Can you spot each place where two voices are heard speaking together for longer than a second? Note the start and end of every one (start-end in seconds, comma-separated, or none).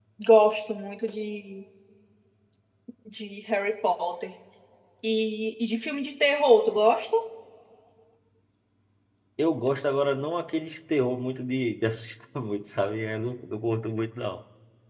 none